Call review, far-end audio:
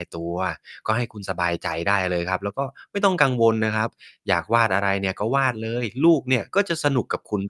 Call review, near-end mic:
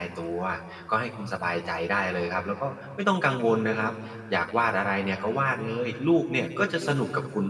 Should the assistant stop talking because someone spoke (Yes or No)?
No